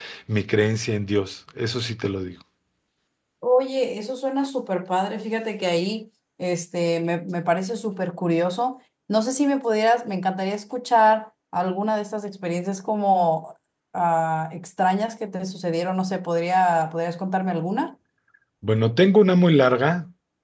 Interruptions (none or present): none